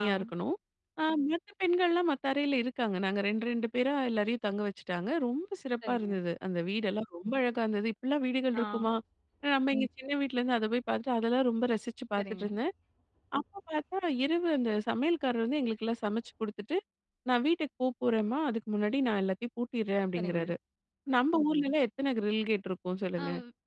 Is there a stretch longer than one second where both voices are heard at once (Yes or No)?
No